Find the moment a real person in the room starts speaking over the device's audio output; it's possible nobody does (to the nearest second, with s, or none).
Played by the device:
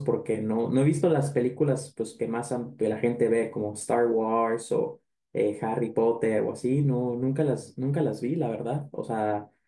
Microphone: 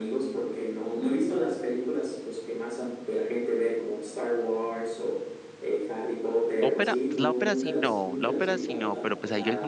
7 s